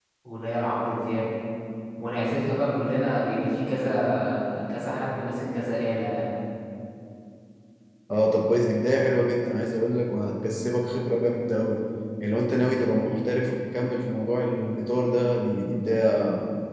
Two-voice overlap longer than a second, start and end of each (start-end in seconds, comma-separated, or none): none